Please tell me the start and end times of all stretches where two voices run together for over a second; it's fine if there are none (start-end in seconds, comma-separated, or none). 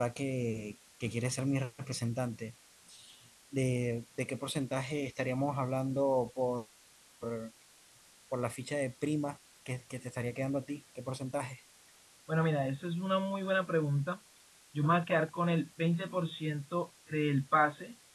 none